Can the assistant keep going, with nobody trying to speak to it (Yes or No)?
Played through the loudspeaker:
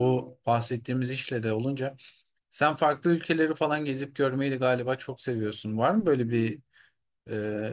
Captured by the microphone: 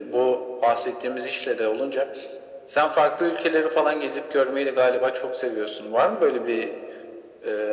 Yes